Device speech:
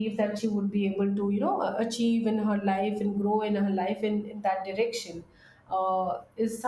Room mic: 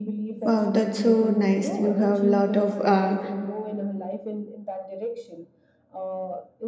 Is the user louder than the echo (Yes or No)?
Yes